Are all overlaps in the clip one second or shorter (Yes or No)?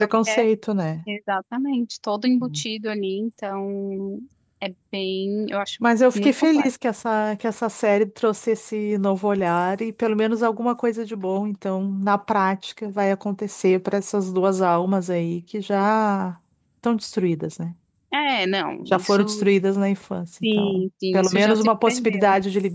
No